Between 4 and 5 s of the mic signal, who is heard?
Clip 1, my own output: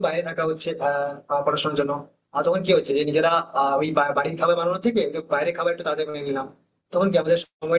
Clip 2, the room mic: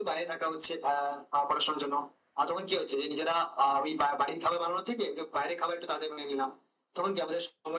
echo only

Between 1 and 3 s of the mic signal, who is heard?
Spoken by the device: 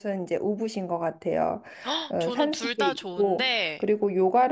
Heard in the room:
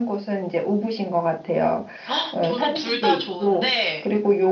echo only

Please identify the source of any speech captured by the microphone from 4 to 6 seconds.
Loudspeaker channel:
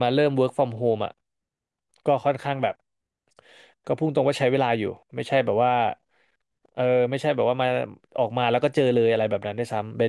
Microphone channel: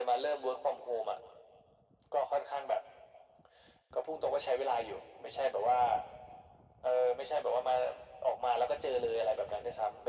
echo only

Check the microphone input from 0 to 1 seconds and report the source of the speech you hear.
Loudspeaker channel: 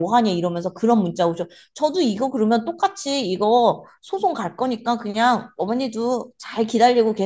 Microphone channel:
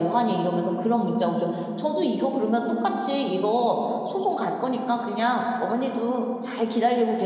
echo only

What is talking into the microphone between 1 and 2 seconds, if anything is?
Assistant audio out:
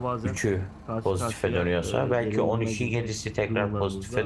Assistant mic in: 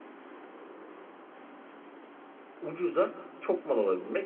neither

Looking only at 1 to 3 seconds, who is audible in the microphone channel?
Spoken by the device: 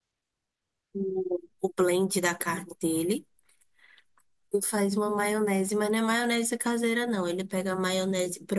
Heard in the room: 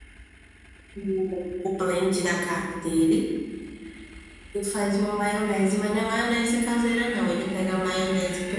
echo only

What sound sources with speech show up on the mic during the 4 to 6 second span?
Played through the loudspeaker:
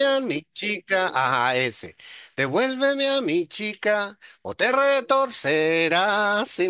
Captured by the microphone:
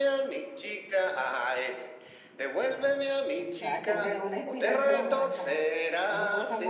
both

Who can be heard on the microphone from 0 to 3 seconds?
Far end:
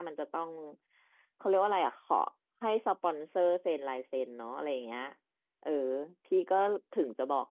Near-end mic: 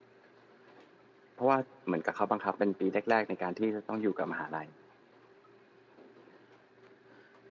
user only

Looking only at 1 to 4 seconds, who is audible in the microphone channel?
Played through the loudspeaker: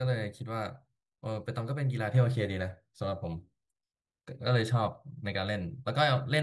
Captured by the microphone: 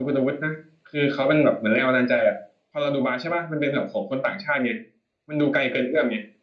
user only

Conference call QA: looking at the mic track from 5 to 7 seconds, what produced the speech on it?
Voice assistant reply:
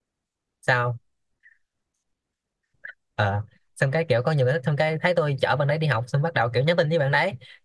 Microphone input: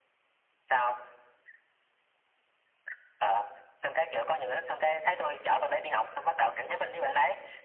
echo only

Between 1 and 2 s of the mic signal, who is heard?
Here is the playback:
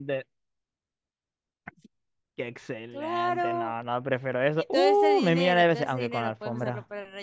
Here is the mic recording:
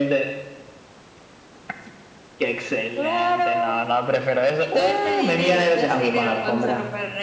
neither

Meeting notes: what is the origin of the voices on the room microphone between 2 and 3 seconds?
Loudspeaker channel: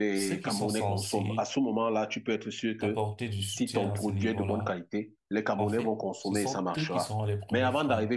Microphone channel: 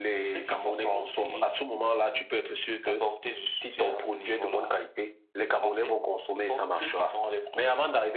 echo only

